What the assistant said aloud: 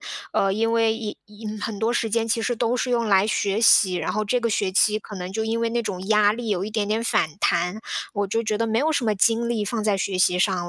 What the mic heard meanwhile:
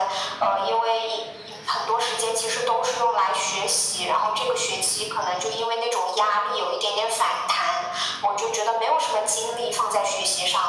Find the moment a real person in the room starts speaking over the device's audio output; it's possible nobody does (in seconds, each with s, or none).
none